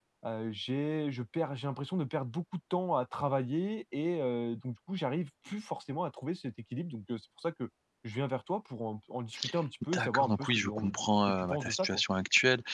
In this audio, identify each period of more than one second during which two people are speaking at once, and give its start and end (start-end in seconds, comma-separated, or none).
9.9-12.0